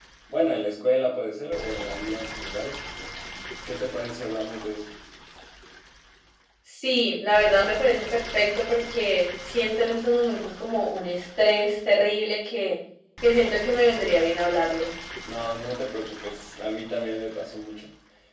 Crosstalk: none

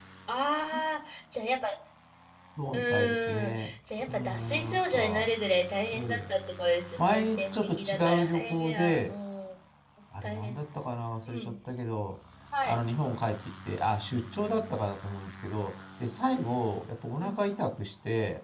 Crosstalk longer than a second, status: present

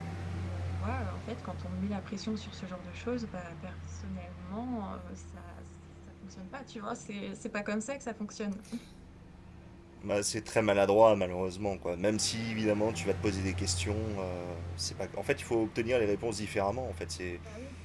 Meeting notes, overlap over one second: none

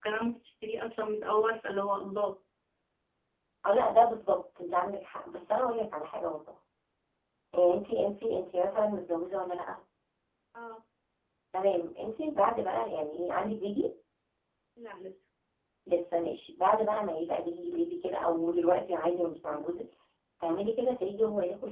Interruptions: none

